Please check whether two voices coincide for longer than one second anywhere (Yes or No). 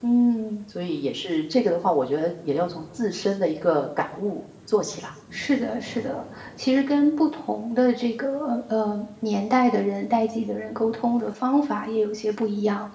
No